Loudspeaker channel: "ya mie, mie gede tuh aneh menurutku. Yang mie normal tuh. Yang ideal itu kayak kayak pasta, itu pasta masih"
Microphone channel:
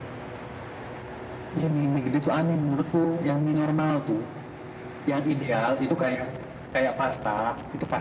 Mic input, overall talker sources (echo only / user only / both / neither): echo only